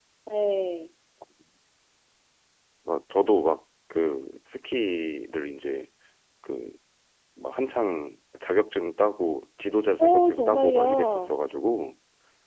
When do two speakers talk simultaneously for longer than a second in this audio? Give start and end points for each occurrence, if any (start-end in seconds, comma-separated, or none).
10.0-11.3